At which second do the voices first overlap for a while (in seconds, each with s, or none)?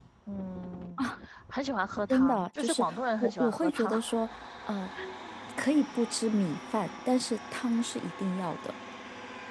2.1 s